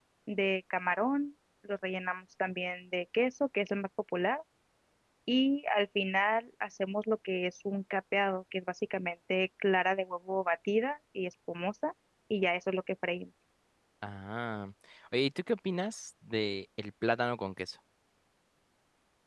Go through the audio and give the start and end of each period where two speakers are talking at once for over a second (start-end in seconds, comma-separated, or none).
none